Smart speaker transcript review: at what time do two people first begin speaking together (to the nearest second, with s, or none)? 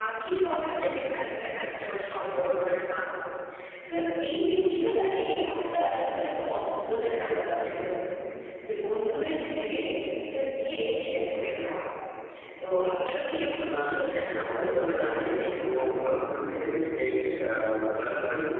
14 s